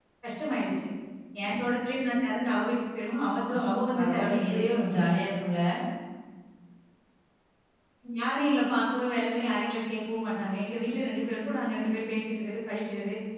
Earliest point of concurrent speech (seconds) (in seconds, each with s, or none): 3.5 s